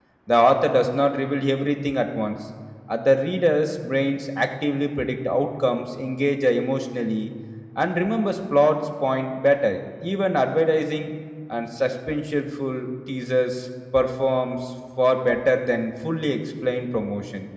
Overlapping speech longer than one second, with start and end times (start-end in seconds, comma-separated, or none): none